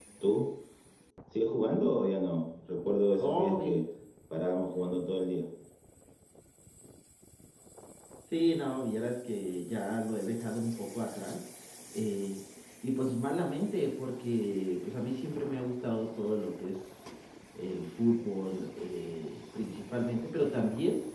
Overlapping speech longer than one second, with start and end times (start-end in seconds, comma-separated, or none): none